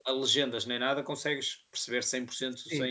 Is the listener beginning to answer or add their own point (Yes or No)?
Yes